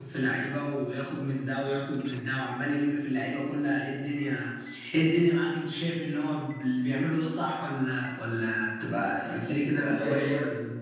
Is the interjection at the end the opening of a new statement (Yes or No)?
Yes